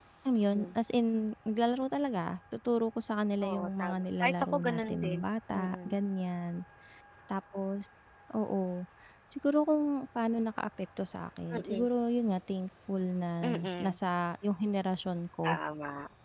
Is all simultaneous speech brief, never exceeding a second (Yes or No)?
No